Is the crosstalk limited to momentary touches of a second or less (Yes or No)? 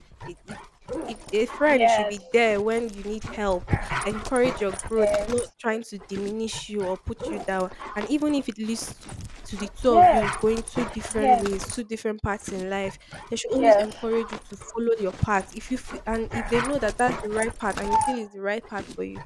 Yes